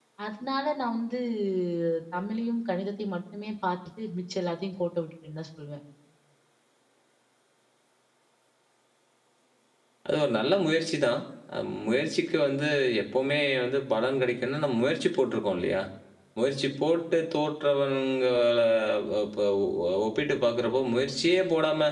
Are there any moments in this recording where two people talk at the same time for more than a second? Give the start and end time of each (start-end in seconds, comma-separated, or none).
none